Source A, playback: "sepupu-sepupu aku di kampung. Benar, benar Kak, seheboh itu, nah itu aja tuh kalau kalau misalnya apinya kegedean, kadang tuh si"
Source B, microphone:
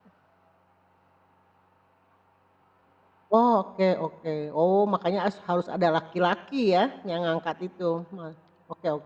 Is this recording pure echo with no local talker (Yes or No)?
No